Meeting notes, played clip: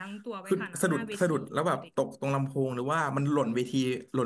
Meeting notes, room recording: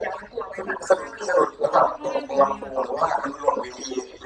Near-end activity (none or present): present